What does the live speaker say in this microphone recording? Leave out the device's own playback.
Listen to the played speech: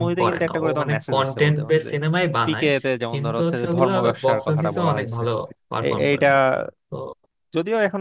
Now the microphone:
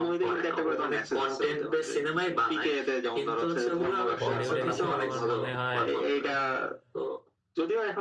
বলিউডের হিসেবে আমার মনে হয়

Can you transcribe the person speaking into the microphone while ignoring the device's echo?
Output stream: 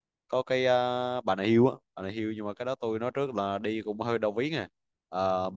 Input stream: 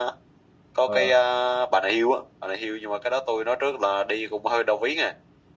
ờ

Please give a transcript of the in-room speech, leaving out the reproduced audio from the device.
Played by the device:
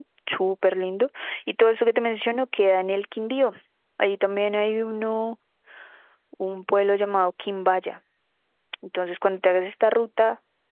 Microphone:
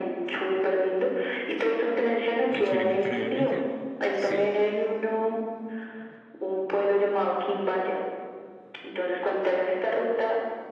a experimentar en el viaje. Sí.

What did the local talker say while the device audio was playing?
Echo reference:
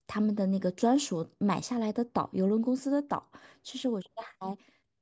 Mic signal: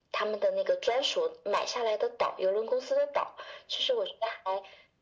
none

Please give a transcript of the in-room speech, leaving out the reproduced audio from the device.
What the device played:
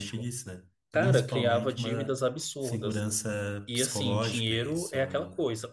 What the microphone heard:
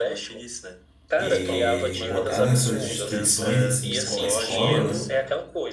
e botar nessas instituições, assim, como a escola, né?

